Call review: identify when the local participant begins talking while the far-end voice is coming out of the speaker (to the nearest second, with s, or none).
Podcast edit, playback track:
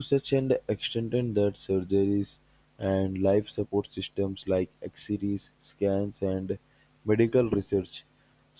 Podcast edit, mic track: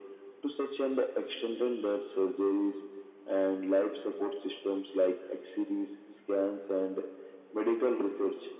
none